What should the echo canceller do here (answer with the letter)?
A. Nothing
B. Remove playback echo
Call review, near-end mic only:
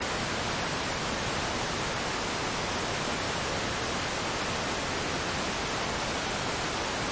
A